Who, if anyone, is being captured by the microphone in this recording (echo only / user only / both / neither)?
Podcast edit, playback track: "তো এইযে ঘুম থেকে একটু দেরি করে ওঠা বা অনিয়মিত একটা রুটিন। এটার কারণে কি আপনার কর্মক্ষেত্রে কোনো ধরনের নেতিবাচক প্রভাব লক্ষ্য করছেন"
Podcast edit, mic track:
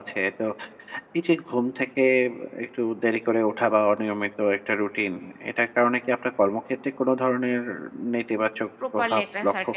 both